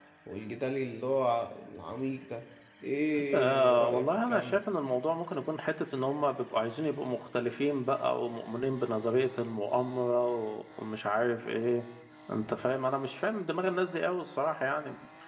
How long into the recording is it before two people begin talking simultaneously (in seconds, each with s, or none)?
3.3 s